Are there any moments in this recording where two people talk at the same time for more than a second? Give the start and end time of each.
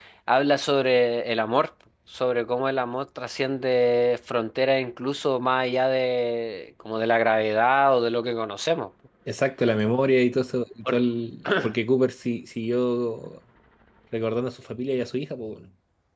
none

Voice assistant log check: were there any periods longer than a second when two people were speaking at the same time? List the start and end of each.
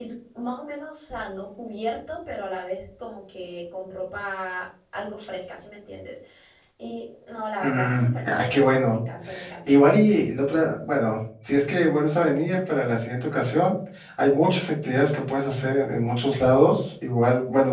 7.6-9.0

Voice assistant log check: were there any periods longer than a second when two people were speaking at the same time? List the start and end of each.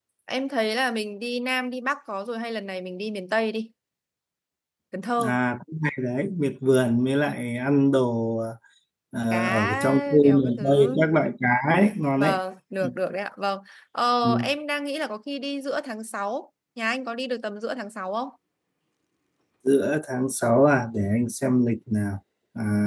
9.3-11.0

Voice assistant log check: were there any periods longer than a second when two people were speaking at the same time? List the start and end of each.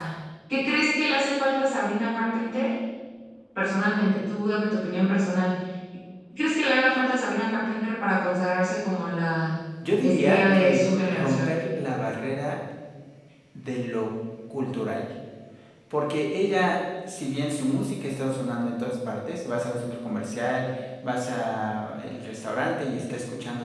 10.0-11.5

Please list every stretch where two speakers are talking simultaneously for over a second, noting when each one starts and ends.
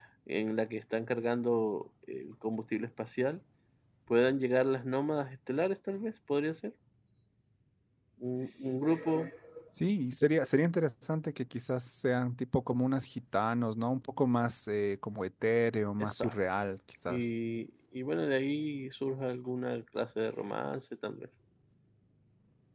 none

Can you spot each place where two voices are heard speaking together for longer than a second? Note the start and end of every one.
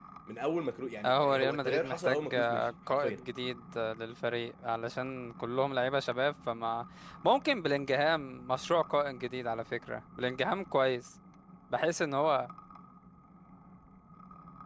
1.0-3.2

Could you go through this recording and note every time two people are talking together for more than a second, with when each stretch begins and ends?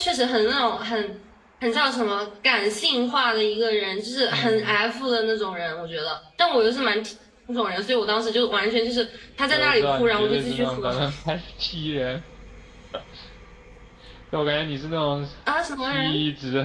9.5-10.9

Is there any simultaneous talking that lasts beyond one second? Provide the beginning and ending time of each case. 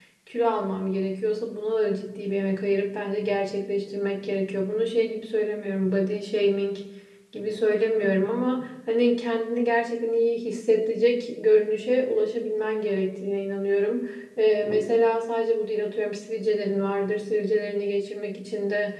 none

